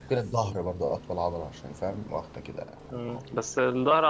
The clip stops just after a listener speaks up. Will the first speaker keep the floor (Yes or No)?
No